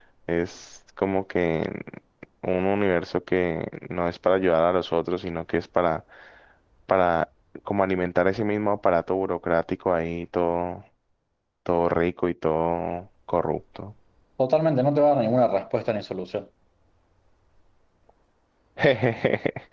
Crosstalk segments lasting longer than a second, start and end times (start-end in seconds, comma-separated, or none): none